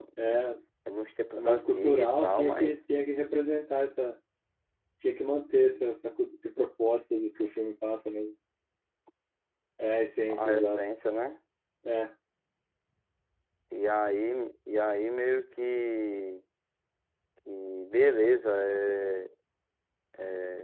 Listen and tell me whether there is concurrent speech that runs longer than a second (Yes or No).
Yes